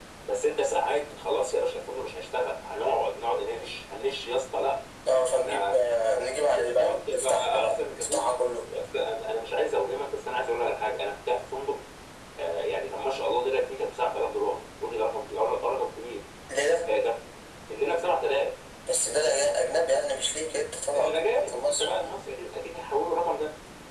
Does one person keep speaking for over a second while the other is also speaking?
Yes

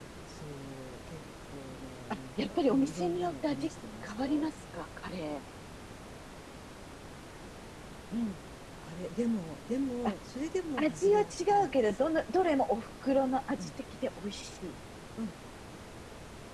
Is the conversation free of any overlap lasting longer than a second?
No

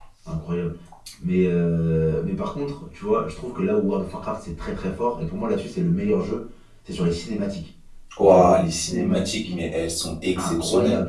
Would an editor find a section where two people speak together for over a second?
Yes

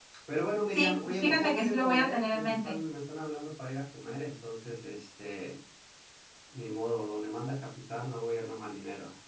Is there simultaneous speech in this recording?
Yes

